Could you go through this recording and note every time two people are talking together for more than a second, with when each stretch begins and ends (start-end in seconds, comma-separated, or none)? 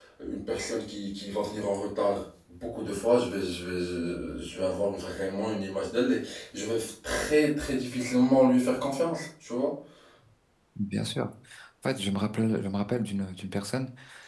none